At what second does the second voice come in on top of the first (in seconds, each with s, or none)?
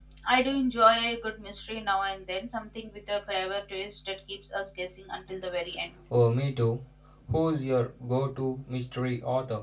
none